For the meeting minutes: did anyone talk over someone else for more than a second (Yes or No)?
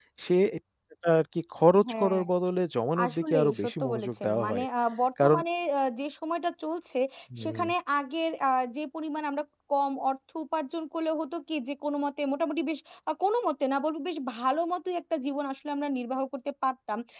Yes